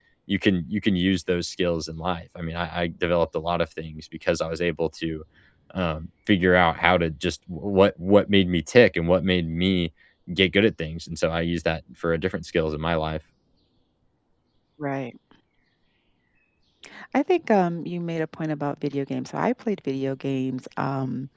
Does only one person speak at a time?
Yes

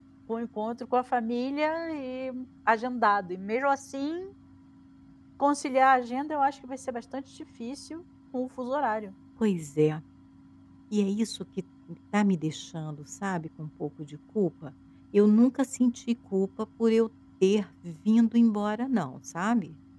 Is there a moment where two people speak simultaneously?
No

